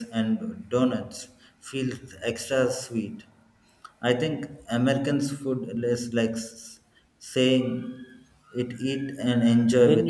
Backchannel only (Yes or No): No